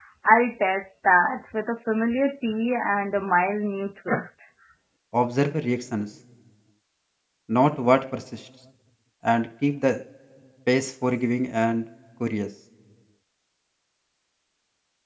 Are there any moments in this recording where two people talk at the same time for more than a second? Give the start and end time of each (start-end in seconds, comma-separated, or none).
none